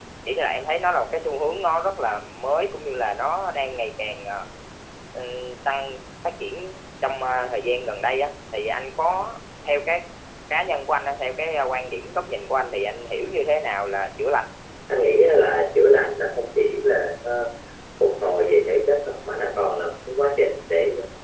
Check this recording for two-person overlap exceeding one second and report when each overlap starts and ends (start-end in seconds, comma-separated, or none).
none